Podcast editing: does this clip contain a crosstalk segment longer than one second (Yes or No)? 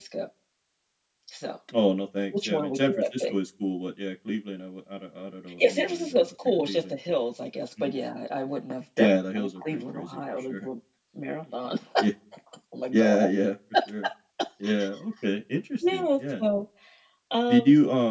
Yes